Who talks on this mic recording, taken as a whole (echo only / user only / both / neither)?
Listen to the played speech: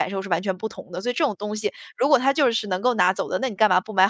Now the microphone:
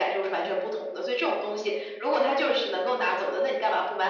echo only